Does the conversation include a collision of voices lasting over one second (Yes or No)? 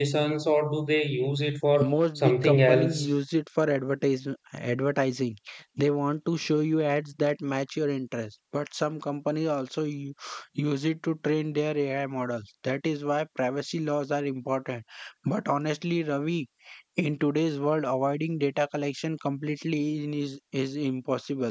Yes